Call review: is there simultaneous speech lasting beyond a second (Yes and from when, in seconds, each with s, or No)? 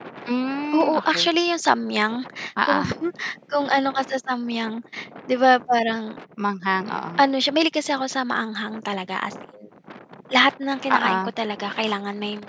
No